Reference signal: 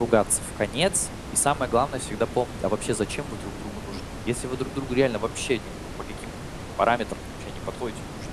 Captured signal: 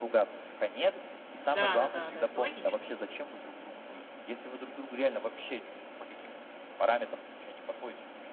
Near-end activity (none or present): present